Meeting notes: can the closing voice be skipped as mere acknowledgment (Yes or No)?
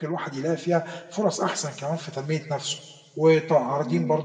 Yes